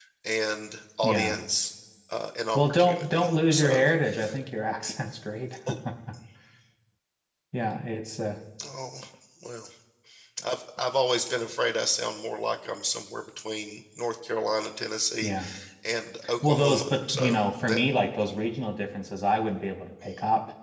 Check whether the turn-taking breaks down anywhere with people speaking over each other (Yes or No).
Yes